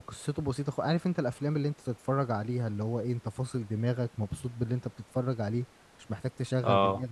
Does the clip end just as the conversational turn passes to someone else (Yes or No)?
No